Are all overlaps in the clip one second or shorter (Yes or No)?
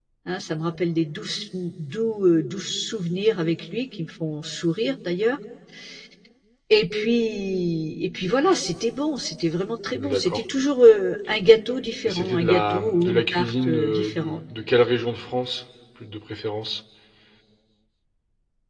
No